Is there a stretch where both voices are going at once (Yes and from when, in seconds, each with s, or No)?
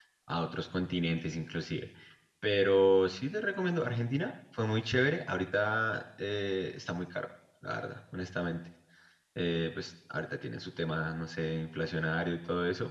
No